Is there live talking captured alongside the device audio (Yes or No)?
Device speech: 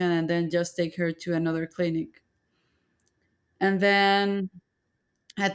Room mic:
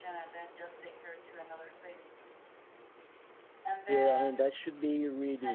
Yes